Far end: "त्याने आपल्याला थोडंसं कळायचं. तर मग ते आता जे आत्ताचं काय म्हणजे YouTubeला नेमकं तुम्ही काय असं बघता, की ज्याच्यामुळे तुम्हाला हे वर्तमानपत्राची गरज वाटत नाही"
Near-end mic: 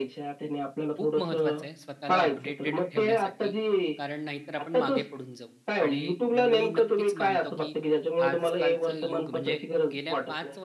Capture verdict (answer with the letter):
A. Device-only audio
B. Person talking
B